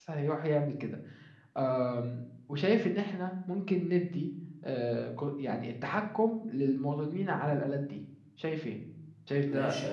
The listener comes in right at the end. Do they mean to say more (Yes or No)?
Yes